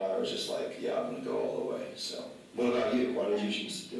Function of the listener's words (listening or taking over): taking over